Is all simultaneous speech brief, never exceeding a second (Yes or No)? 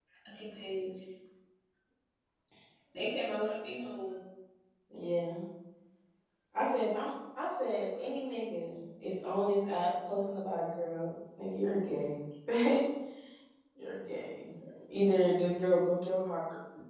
Yes